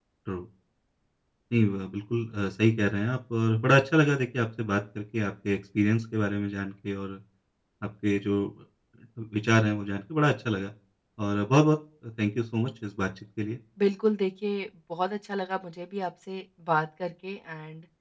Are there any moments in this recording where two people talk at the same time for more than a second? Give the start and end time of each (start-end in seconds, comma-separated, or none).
none